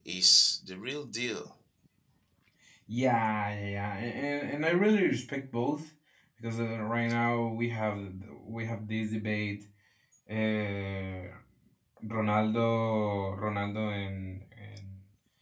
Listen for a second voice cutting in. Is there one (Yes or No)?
No